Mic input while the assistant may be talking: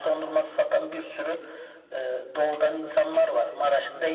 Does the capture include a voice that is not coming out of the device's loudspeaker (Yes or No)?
No